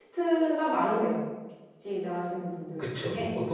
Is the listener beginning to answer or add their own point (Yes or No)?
Yes